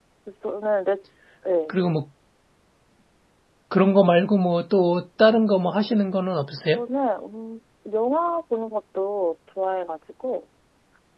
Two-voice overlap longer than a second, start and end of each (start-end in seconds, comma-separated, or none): none